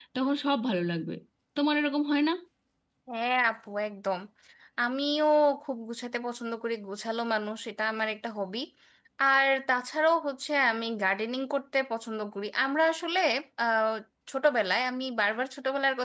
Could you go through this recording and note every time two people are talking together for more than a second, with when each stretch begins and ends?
none

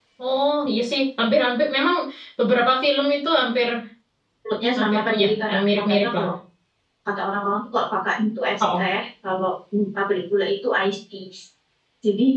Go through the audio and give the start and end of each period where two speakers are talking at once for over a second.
4.8-6.3

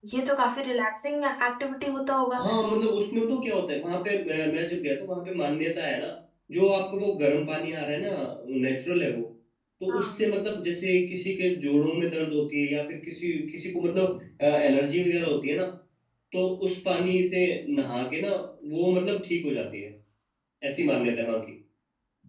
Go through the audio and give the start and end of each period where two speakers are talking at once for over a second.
none

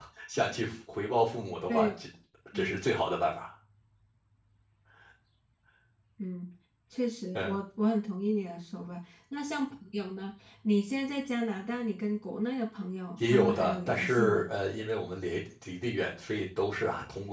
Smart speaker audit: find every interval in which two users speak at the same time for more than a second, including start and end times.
13.2-14.4

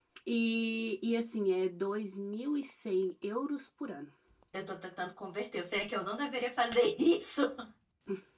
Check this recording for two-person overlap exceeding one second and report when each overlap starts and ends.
none

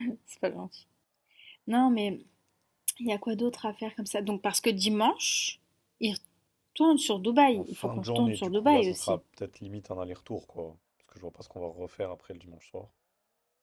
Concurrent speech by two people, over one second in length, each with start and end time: 7.5-9.2

